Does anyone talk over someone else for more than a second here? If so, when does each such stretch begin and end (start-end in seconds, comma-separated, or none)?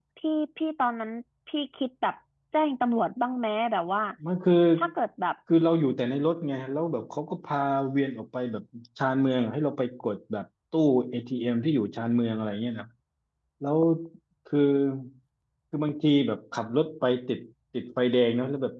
none